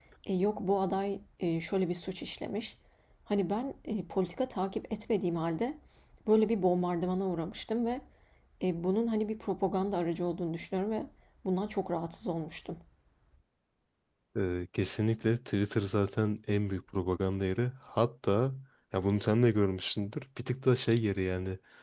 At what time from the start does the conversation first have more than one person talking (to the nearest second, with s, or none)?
none